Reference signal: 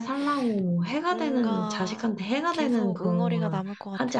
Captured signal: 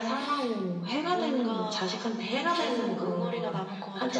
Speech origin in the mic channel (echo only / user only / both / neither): echo only